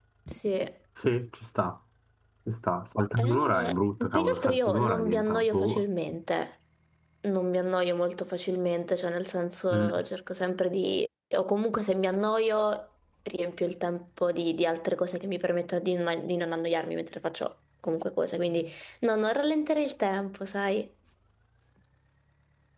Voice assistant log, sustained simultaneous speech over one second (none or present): present